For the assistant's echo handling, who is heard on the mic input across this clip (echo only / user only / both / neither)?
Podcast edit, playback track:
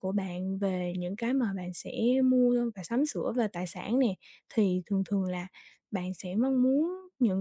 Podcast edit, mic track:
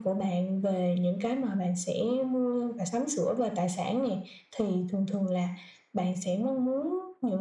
echo only